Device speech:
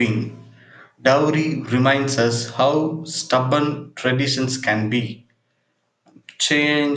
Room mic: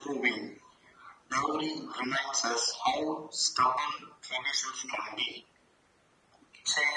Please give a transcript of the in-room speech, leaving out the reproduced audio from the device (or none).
none